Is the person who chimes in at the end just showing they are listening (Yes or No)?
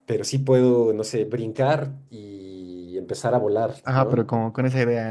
No